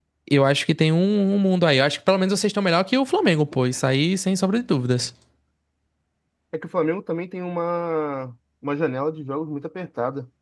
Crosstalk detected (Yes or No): No